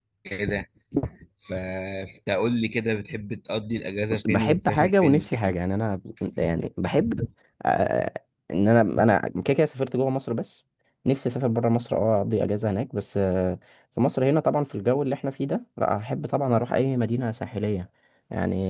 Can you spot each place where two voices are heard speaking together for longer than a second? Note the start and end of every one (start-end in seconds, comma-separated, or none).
4.1-5.6